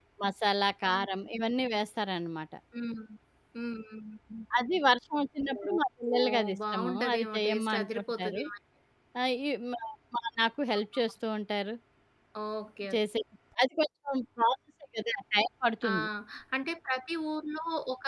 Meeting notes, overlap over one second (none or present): present